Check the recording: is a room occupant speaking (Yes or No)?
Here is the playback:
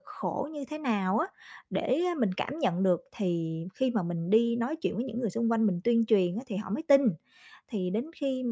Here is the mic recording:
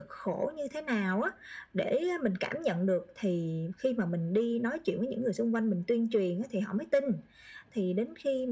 No